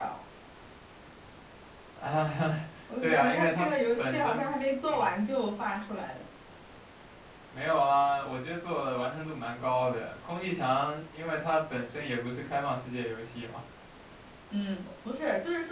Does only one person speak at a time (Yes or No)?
No